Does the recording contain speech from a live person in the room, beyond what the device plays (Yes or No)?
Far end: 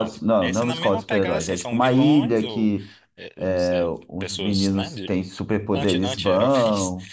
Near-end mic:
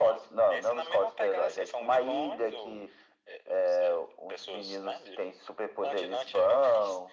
No